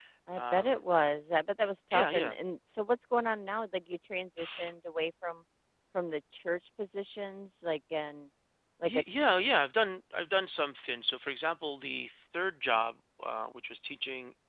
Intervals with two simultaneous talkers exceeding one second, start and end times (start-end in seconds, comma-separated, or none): none